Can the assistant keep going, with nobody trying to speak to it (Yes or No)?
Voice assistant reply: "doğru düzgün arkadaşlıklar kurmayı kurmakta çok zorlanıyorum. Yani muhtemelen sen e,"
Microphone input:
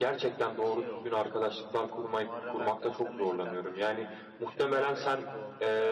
No